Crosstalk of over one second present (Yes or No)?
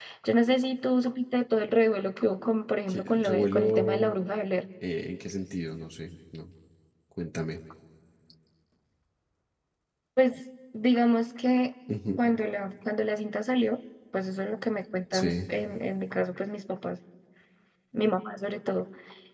Yes